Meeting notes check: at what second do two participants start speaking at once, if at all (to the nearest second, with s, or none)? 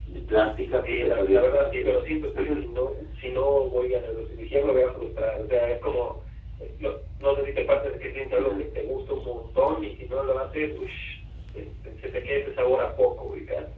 1 s